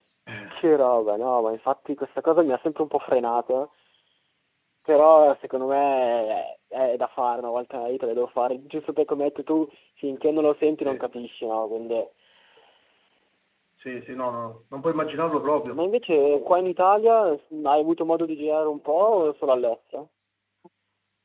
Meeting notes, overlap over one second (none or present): none